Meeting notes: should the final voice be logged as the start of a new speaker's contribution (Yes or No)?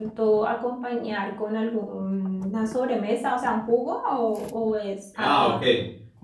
Yes